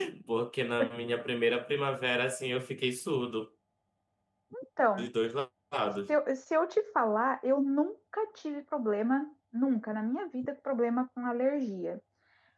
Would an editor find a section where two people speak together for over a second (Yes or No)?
No